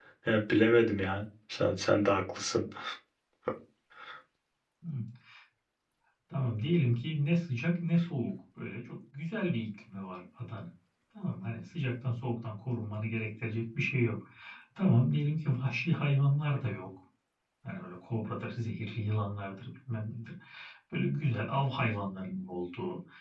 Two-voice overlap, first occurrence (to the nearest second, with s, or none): none